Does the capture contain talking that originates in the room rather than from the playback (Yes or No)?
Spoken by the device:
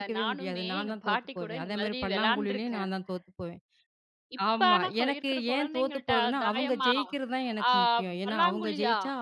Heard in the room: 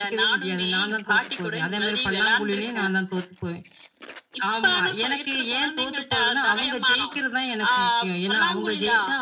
No